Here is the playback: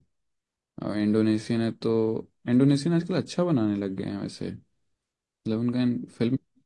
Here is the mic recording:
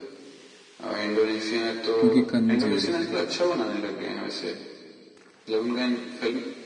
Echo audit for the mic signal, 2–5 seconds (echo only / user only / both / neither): both